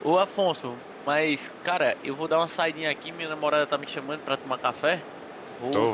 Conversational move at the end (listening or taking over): taking over